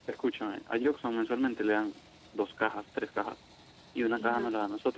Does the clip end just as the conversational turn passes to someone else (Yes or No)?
No